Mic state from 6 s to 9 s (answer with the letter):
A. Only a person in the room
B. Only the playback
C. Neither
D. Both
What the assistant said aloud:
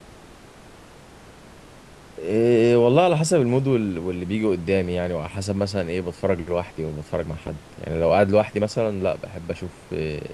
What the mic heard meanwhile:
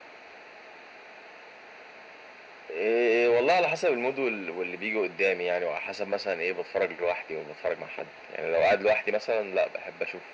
B